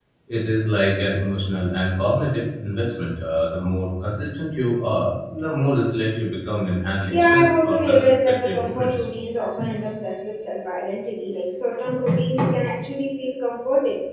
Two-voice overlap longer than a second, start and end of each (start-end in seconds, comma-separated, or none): 7.1-9.1